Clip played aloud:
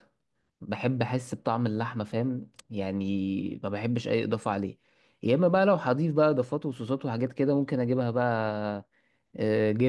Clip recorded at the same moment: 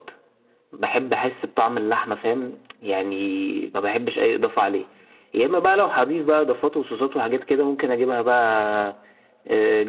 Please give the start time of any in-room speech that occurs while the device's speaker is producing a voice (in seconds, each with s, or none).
none